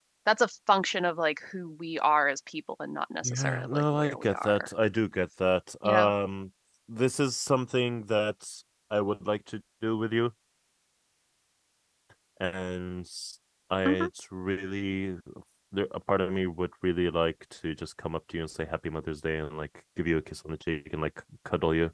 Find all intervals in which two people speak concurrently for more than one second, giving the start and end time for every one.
3.2-4.7

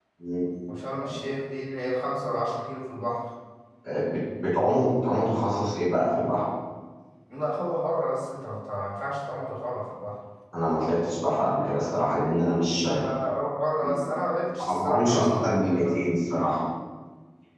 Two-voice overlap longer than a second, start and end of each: 14.6-15.9

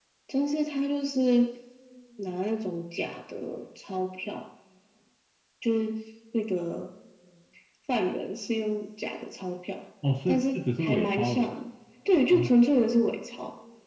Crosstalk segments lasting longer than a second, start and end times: 10.3-11.5

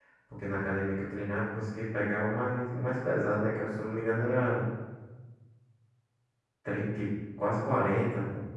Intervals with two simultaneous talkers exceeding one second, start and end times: none

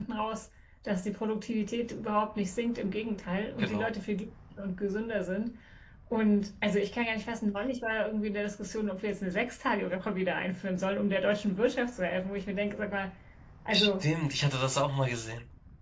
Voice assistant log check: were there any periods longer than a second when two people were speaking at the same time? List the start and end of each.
none

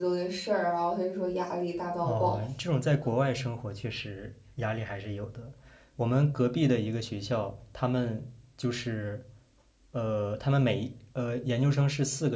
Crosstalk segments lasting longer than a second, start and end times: none

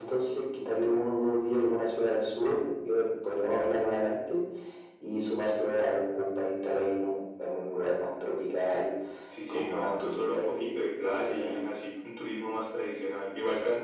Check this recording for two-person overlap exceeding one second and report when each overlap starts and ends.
9.5-11.6

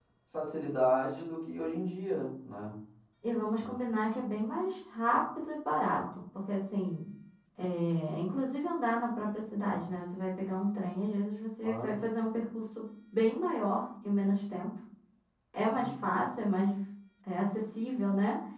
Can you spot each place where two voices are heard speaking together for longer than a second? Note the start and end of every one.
none

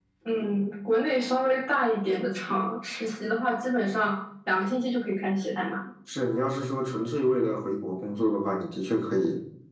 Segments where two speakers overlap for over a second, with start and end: none

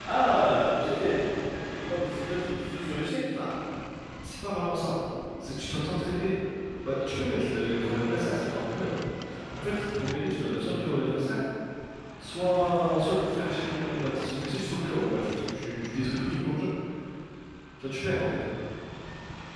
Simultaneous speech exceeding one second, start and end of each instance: none

